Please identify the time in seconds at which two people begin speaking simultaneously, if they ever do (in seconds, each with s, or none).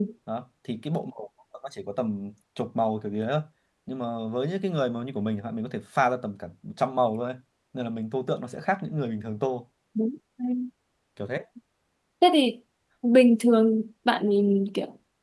none